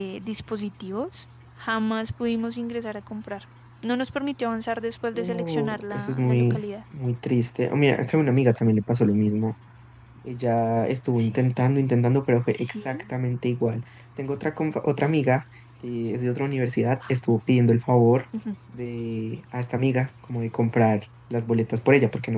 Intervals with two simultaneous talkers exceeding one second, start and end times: 5.2-6.6

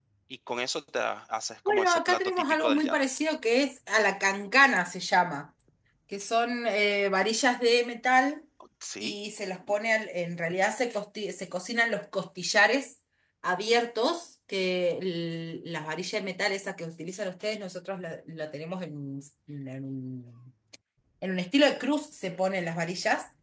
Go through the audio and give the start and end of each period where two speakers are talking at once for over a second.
1.7-3.0

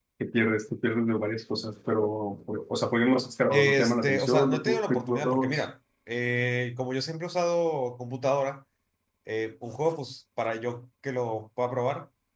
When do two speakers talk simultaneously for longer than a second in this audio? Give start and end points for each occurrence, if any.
3.5-5.6

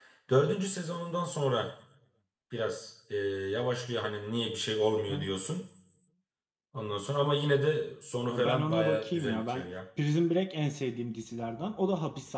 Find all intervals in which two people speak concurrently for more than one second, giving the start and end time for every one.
8.3-9.7

